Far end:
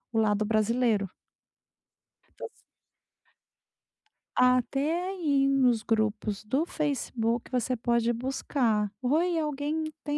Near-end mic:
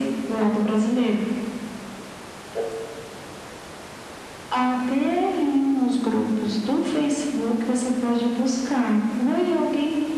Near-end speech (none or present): none